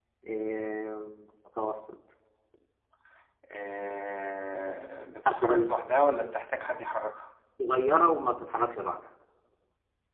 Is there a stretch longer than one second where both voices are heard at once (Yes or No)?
No